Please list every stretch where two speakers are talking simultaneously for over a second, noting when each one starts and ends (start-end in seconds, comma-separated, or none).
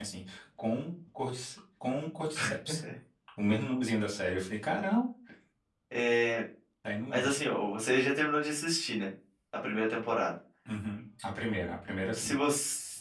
none